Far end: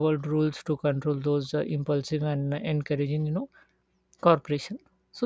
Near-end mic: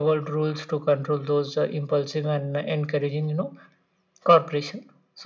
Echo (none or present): present